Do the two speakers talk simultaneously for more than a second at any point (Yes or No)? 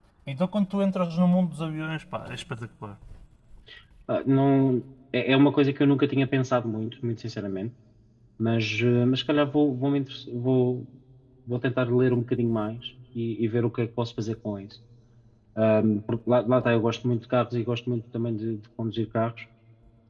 No